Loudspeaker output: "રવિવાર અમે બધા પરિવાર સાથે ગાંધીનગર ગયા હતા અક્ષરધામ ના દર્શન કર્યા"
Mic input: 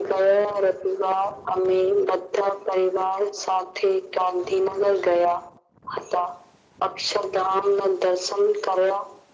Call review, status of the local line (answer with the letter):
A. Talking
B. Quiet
B